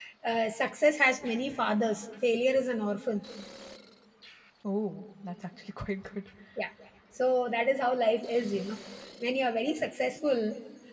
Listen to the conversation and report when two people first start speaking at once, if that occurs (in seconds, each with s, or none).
none